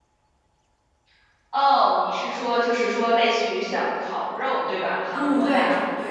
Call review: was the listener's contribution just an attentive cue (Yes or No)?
No